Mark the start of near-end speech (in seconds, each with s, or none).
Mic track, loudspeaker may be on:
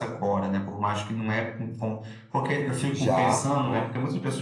2.9 s